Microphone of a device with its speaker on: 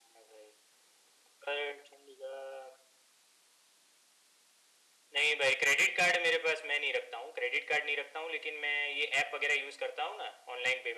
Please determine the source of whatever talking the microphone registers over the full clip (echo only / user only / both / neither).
echo only